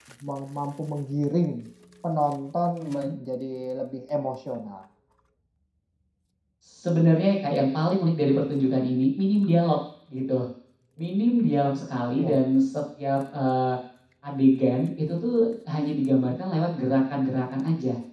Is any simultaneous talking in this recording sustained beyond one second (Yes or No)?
No